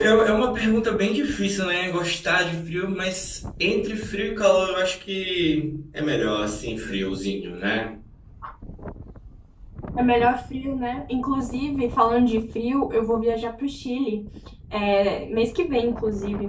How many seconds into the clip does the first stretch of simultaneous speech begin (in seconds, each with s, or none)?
none